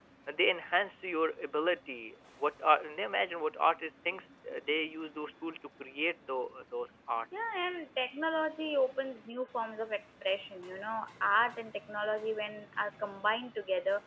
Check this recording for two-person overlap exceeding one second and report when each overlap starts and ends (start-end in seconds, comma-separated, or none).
none